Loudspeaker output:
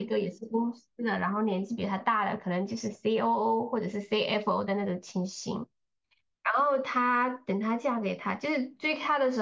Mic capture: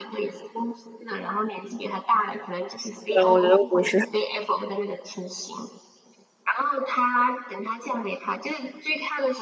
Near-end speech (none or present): present